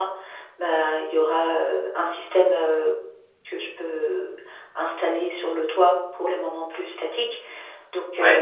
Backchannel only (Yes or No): Yes